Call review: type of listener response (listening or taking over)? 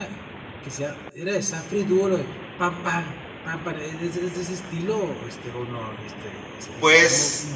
taking over